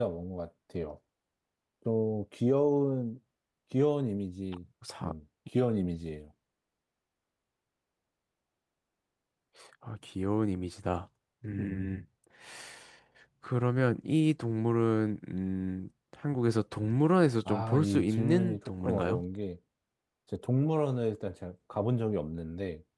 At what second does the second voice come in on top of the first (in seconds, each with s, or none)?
17.4 s